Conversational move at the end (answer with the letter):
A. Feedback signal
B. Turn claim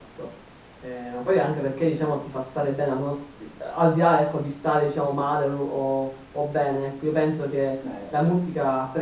A